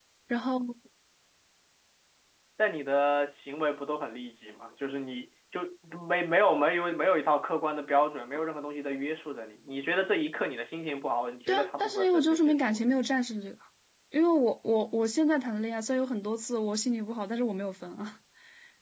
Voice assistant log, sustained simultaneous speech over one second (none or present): present